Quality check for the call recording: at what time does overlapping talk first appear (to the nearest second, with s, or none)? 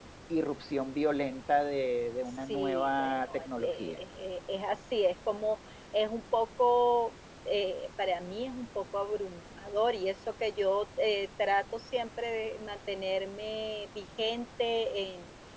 2 s